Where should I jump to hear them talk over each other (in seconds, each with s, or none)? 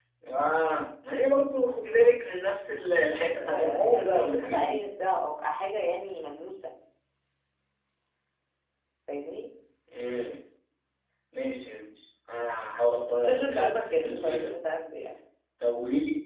3.4 s